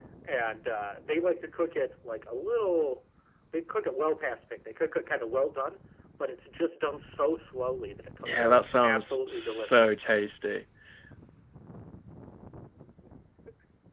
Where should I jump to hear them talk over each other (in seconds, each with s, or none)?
8.2 s